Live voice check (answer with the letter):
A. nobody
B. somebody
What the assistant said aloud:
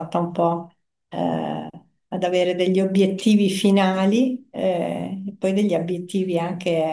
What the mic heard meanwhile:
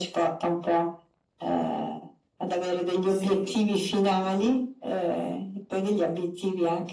B